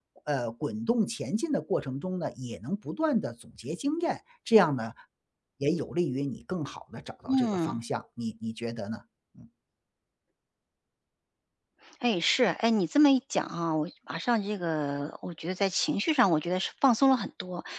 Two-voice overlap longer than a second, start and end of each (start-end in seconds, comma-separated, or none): none